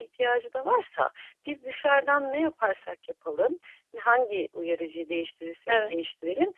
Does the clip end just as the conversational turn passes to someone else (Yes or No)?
No